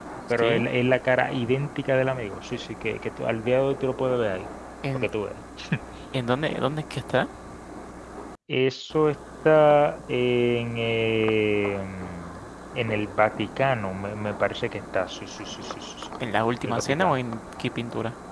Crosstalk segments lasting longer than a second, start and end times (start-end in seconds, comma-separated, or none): none